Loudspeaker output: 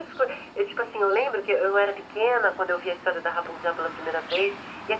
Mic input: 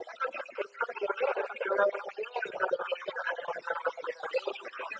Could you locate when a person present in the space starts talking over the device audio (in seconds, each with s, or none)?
none